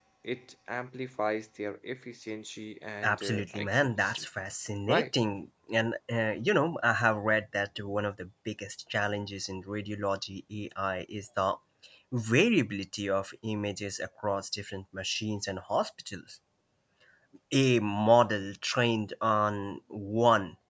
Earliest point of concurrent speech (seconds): 3.0 s

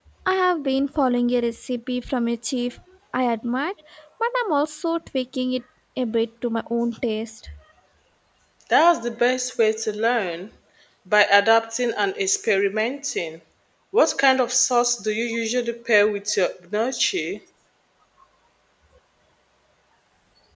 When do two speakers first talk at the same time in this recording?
none

